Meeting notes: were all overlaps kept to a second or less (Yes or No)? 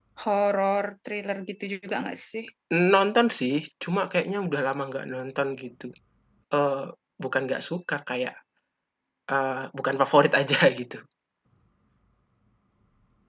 Yes